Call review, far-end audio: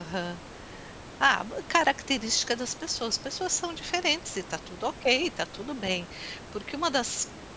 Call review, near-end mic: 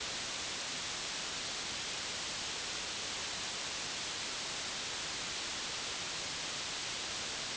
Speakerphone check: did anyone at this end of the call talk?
No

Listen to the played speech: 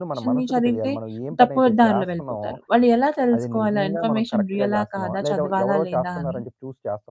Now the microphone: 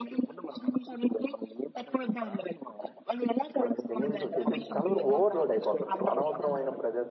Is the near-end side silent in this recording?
No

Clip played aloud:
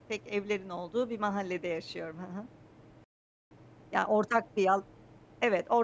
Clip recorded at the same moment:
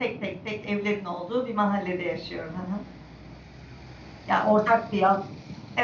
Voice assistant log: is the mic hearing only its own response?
Yes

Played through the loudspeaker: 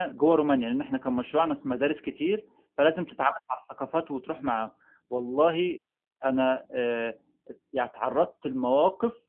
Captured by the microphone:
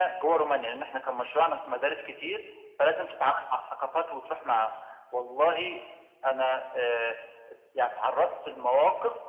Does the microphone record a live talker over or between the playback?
No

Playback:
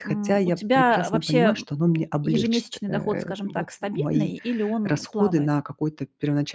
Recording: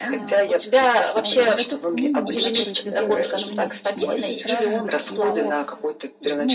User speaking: Yes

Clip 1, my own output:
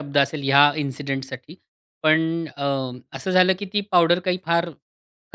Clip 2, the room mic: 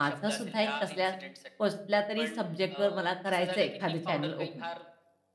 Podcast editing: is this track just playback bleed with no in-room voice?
No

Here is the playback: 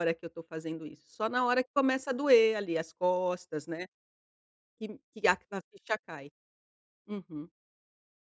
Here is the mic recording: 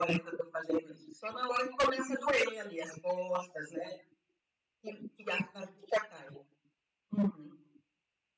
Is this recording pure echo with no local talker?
Yes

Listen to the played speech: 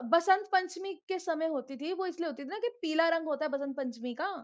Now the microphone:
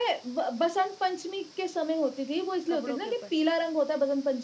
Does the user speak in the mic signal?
Yes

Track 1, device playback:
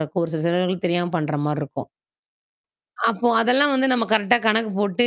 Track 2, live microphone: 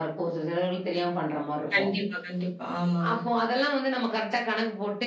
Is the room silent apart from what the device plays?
No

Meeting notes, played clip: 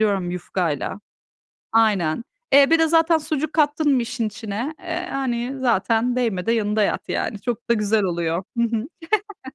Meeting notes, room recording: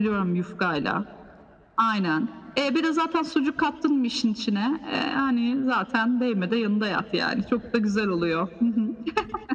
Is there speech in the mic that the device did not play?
No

